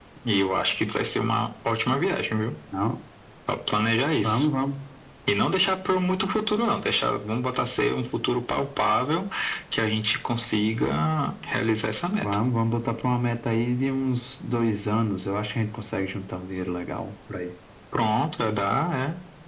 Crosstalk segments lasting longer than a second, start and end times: none

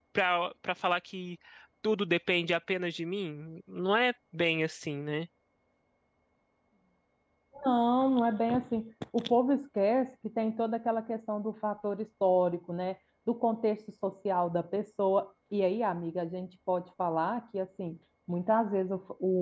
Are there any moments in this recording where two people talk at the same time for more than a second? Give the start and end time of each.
none

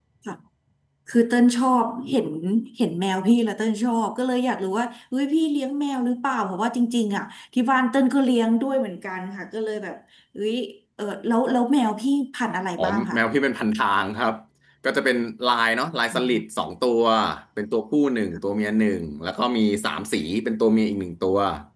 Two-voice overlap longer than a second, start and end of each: none

